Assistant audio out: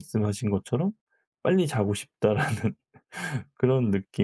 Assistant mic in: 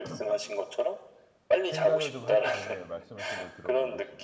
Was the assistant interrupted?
Yes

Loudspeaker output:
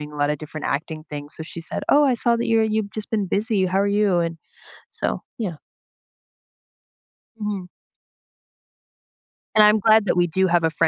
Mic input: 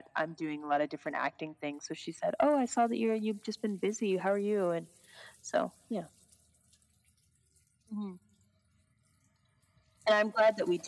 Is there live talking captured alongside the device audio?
No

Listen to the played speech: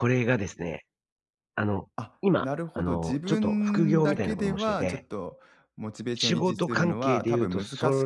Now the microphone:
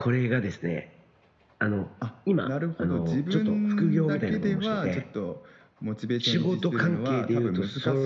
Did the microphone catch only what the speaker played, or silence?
Yes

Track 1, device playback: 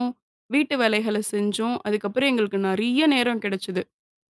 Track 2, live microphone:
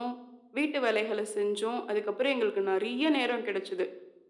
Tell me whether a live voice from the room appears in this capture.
No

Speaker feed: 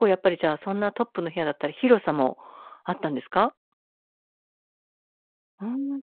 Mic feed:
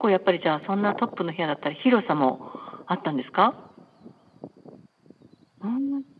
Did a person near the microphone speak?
No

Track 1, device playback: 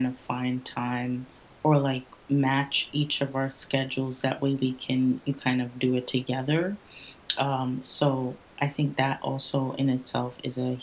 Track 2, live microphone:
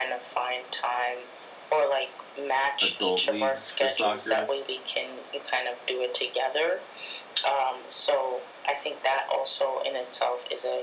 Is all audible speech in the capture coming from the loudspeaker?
No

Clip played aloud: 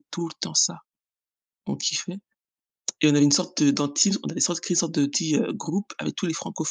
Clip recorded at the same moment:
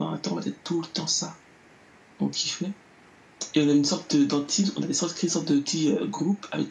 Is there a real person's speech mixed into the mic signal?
No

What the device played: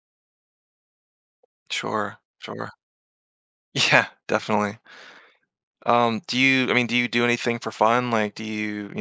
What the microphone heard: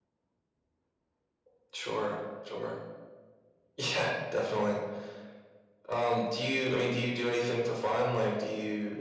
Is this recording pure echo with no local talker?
Yes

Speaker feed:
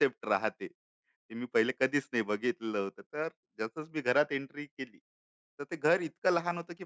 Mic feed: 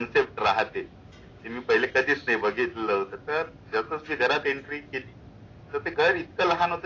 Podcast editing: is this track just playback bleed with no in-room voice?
Yes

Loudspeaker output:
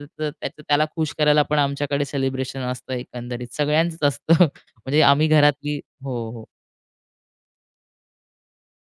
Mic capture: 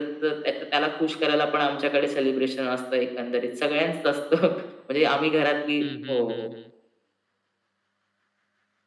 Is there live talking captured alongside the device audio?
Yes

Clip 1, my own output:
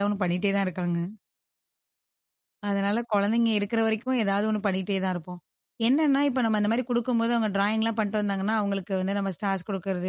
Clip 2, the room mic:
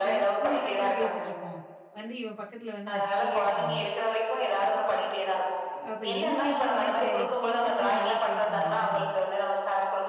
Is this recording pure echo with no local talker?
No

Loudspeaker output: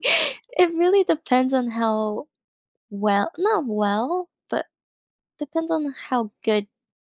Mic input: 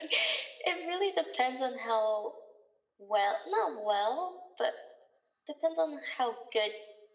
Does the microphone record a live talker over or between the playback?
No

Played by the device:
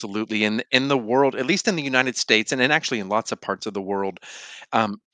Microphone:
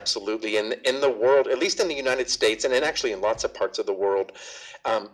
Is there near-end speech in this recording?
No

